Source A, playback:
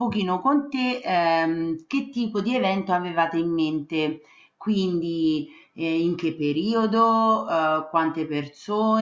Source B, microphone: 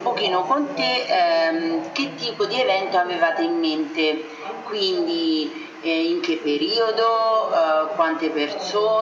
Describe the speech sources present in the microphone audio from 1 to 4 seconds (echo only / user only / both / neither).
both